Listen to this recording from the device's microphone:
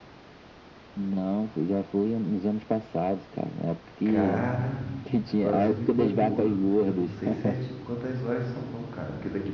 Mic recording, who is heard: both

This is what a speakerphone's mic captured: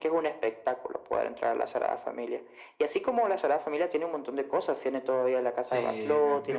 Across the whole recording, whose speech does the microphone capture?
both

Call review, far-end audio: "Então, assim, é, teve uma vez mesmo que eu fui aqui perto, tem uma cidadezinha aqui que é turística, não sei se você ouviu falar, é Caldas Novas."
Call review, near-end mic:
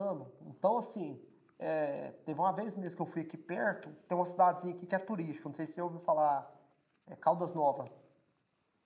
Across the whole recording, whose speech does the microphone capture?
echo only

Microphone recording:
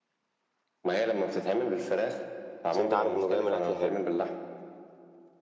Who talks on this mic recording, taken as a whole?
both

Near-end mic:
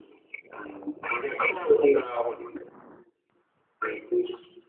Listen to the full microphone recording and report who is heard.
echo only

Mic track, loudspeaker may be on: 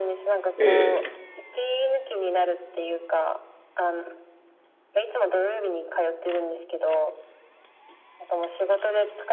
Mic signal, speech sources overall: both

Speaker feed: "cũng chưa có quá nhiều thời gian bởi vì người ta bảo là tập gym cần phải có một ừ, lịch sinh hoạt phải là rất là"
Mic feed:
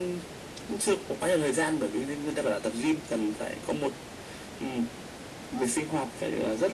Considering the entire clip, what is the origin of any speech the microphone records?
echo only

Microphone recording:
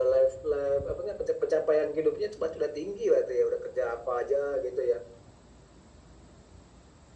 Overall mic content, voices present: echo only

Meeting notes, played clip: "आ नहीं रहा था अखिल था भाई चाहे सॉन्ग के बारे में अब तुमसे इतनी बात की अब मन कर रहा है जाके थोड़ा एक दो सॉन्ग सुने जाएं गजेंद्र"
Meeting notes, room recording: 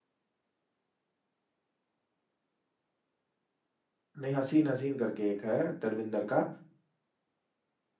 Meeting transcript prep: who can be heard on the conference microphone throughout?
user only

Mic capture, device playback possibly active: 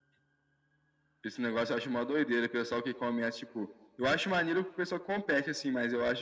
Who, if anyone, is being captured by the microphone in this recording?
echo only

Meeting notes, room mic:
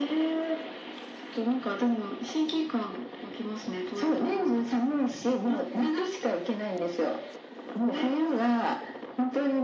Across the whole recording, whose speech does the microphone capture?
echo only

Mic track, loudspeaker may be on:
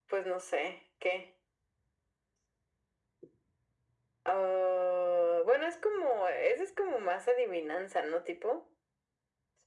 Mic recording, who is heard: echo only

